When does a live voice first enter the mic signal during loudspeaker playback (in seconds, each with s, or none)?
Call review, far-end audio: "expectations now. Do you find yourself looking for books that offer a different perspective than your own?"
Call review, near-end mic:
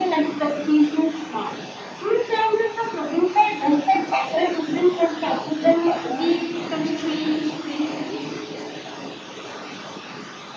6.1 s